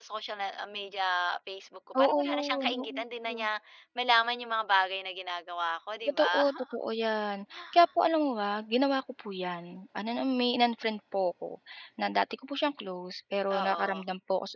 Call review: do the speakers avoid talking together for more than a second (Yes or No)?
No